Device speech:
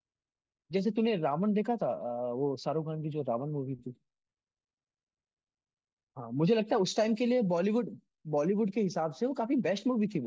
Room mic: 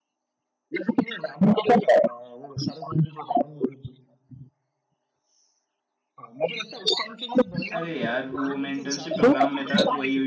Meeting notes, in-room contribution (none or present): present